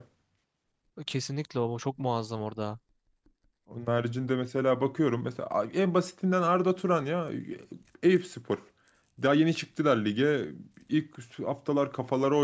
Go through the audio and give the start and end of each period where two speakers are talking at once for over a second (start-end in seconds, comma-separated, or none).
none